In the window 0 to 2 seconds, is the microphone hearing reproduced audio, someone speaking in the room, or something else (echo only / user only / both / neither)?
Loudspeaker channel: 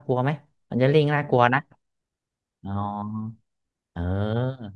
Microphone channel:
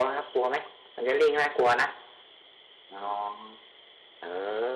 echo only